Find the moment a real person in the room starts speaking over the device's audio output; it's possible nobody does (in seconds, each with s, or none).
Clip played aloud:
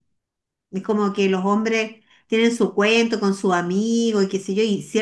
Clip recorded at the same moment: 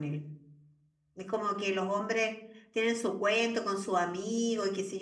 none